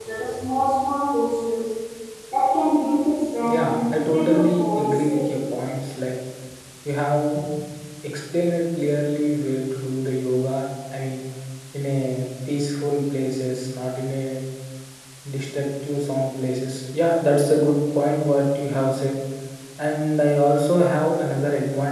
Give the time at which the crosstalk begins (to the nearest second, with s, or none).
3 s